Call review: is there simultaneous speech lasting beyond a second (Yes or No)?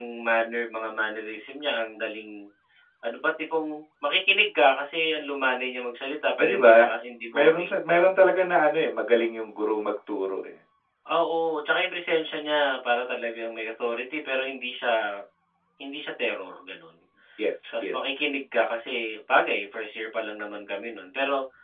No